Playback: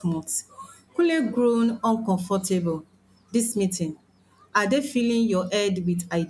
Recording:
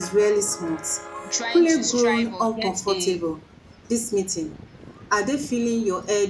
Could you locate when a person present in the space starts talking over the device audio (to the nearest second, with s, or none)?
1 s